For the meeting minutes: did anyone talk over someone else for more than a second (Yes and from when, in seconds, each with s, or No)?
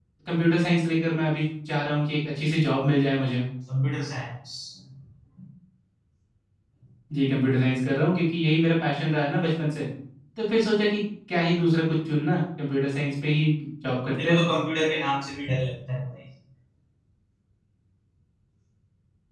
No